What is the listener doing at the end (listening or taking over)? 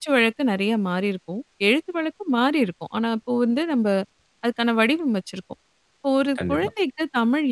listening